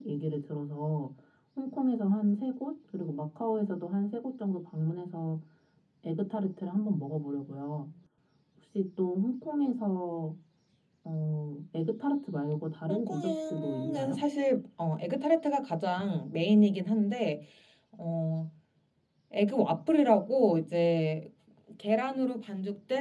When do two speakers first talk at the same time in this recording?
12.9 s

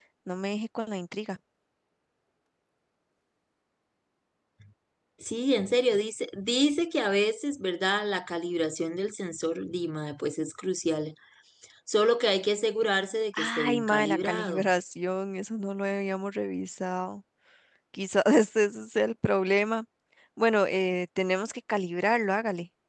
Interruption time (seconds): 13.3 s

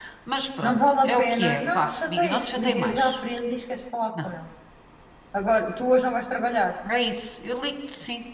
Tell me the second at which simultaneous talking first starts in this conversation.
0.6 s

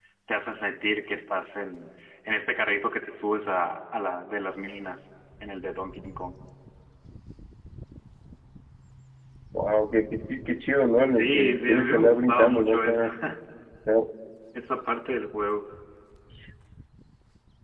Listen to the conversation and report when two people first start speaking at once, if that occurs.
11.1 s

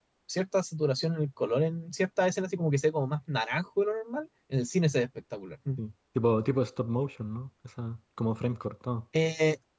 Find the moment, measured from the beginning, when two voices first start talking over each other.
none

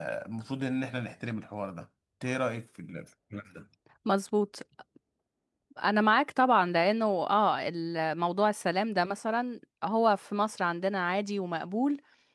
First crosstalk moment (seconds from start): none

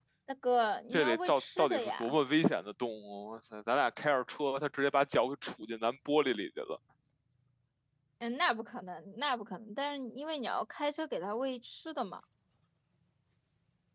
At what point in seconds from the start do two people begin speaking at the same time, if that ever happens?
0.9 s

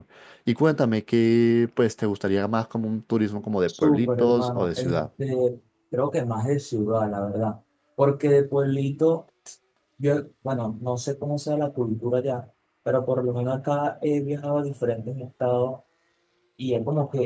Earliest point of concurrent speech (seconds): 3.7 s

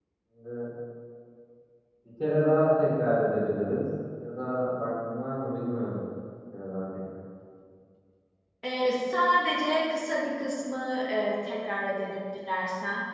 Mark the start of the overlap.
none

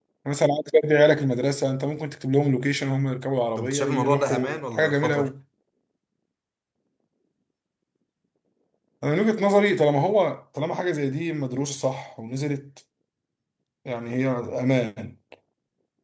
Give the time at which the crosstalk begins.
3.6 s

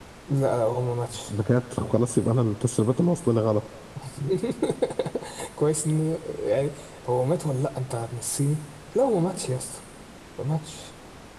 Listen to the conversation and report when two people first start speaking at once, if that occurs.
none

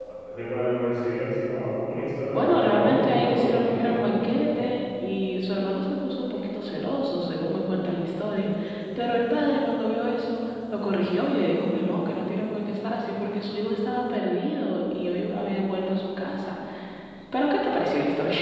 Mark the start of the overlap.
2.3 s

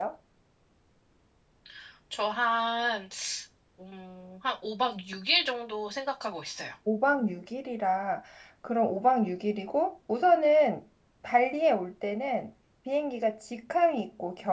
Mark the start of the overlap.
none

